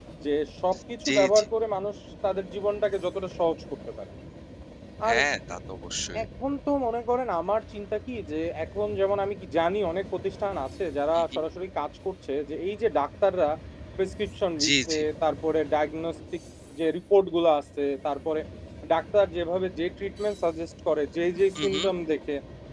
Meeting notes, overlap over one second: none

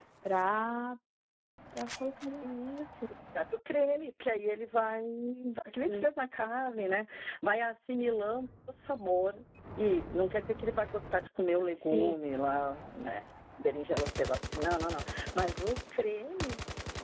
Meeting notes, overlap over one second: none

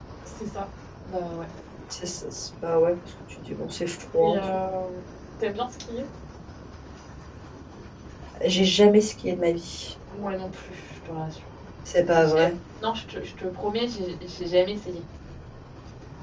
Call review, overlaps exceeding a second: none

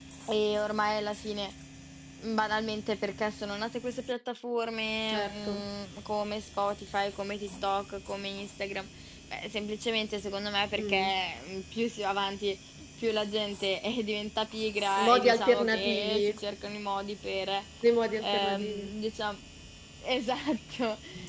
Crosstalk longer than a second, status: present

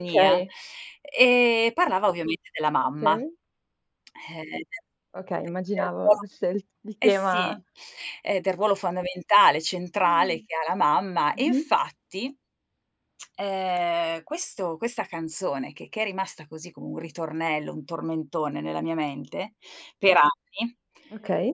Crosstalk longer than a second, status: none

